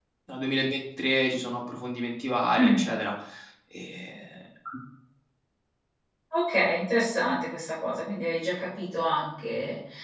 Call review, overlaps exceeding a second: none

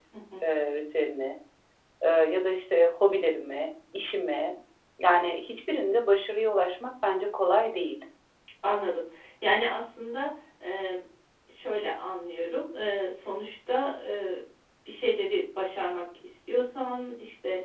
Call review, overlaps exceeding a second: none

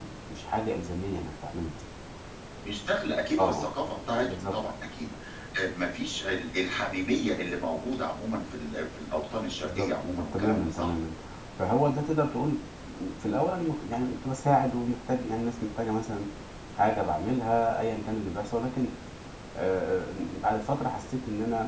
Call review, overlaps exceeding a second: present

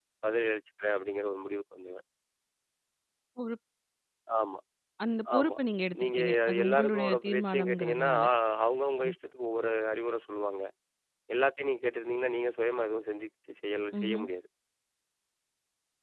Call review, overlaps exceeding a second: present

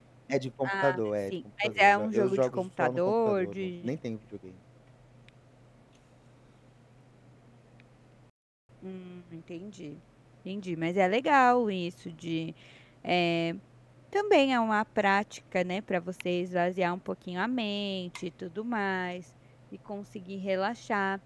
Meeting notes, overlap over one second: present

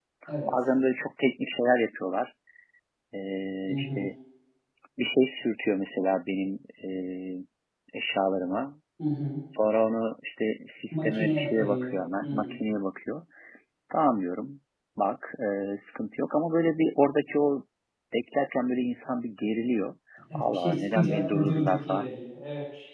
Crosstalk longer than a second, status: present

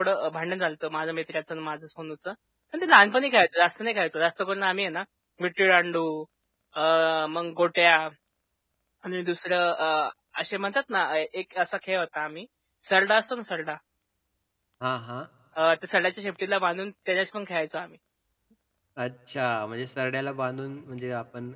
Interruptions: none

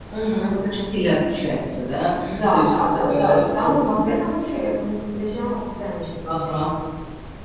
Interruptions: present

